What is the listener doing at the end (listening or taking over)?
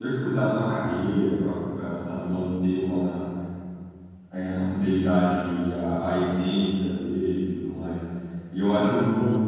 listening